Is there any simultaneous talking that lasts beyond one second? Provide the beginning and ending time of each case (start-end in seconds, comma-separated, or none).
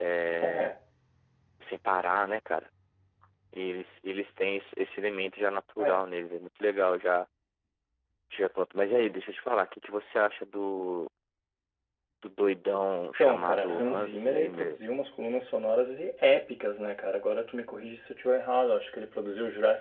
13.2-14.8